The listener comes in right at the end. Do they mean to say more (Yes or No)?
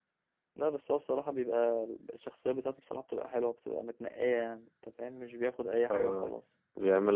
Yes